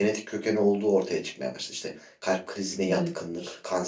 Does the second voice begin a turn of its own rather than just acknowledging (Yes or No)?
No